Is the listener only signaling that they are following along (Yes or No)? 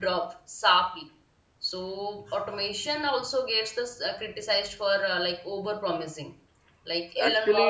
No